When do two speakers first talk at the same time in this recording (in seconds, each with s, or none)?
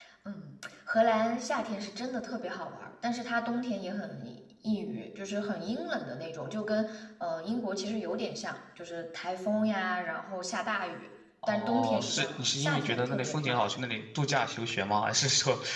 11.4 s